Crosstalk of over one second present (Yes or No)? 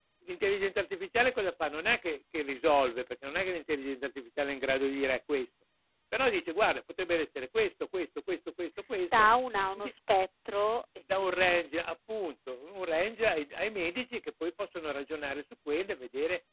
No